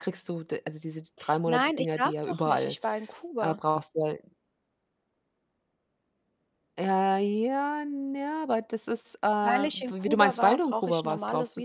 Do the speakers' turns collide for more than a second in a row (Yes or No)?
Yes